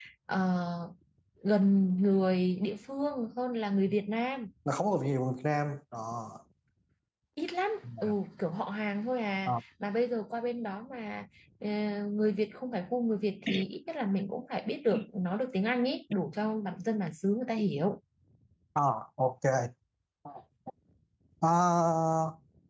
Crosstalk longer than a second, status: none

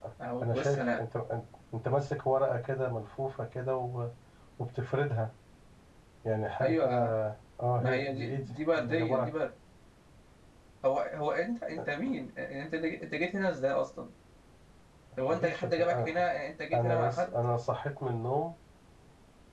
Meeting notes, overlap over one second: present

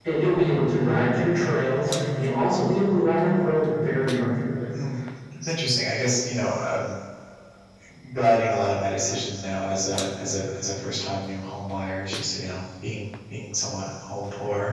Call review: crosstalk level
none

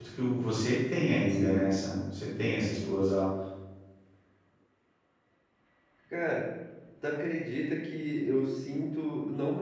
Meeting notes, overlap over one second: none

